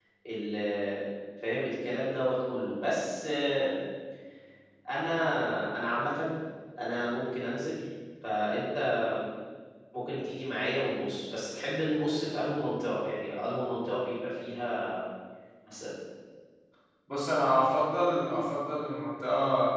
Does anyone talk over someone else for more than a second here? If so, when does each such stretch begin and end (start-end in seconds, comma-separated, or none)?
none